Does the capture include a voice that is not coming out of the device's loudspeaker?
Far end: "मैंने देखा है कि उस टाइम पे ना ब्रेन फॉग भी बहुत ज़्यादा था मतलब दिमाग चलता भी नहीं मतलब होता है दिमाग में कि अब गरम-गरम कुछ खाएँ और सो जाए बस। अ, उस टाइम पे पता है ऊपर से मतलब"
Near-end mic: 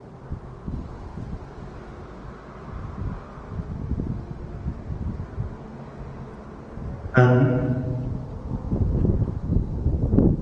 Yes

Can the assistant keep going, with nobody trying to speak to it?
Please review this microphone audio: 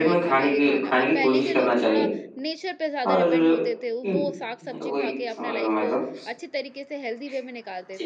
No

